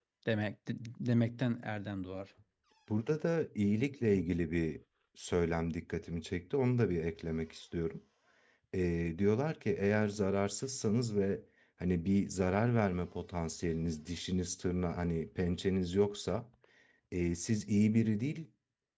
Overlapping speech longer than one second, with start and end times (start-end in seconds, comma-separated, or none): none